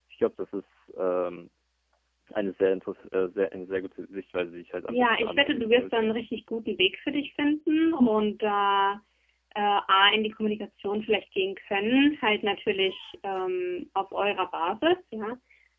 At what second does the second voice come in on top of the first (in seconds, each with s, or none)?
4.9 s